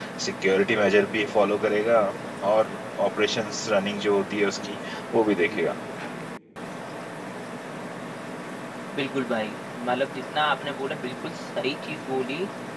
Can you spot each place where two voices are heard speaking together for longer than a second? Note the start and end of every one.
none

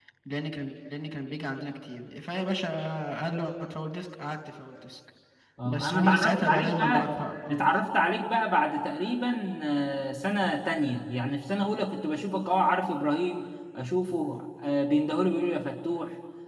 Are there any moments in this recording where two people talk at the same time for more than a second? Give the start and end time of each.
5.6-7.0

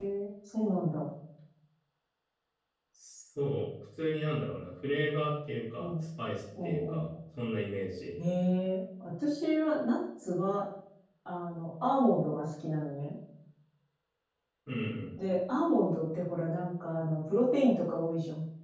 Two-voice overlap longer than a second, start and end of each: none

